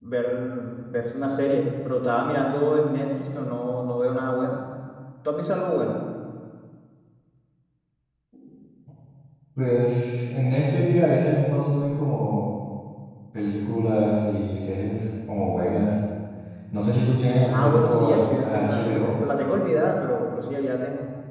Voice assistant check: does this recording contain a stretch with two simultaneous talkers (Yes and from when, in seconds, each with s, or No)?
Yes, from 17.5 s